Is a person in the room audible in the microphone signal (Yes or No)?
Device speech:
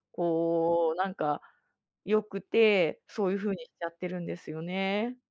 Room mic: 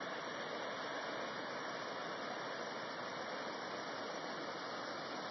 No